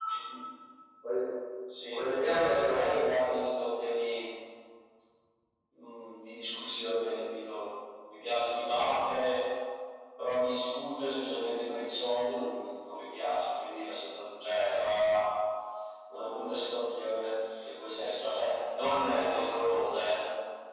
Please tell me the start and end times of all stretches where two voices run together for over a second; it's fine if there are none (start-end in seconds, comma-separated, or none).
2.0-3.2